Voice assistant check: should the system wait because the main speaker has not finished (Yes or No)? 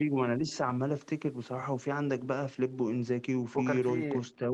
Yes